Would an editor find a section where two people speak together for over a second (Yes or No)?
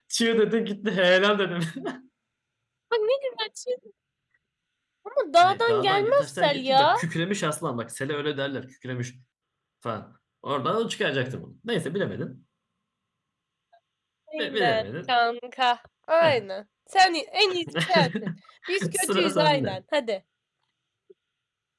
Yes